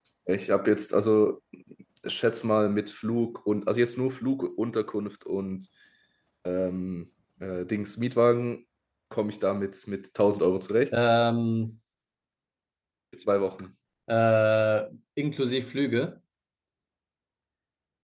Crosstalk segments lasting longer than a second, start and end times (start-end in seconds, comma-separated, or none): none